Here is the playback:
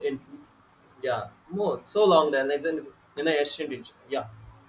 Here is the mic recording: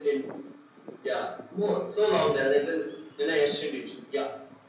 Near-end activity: none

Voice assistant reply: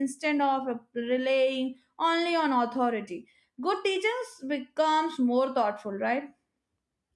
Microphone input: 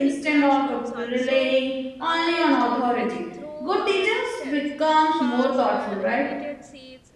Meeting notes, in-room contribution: present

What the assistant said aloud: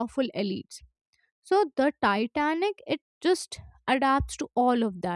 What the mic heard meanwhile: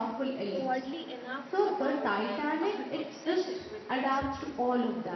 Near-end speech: present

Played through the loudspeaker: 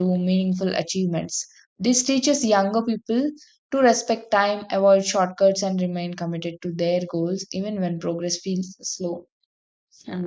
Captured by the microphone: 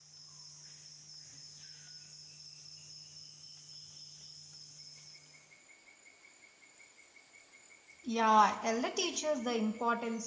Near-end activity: present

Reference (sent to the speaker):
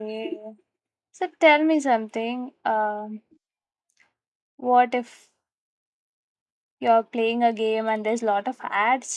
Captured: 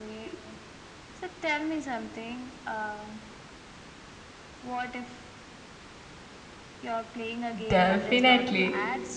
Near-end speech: present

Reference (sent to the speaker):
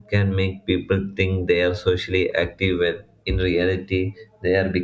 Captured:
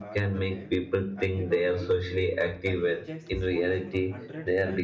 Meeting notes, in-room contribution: present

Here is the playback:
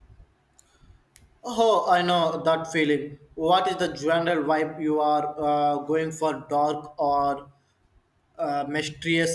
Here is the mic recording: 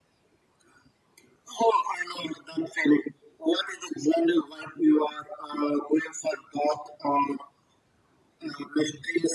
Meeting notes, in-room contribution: none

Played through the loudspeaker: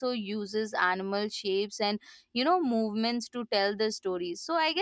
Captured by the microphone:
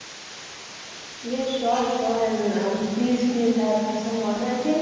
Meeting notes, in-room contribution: present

